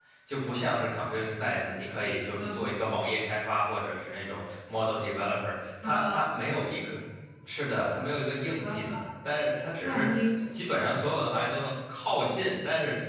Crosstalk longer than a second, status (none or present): none